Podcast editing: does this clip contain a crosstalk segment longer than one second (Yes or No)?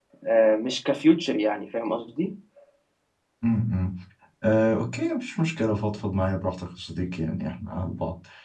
No